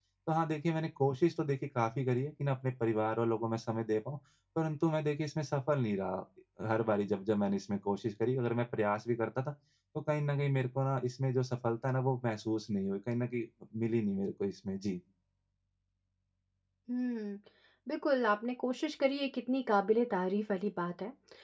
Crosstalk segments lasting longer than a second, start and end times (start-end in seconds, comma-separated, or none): none